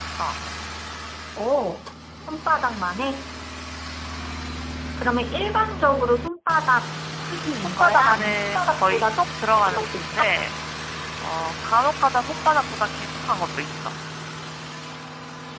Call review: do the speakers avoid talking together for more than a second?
No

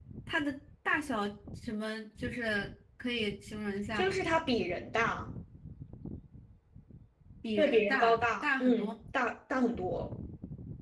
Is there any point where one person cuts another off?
Yes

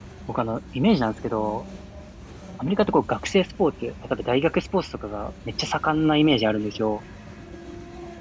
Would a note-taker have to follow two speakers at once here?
No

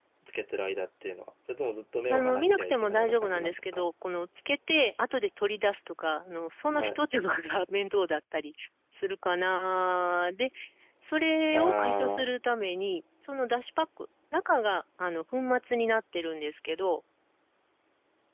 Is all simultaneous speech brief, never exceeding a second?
No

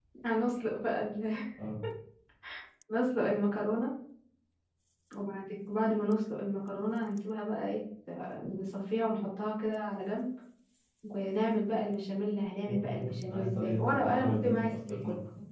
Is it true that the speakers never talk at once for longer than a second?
No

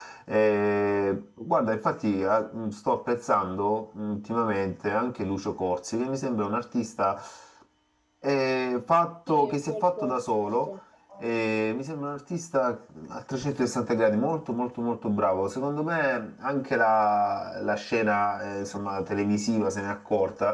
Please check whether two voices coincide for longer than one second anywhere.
Yes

